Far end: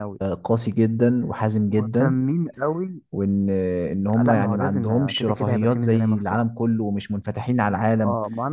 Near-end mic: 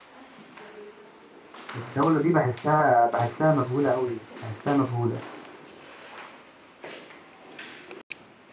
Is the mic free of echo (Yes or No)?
Yes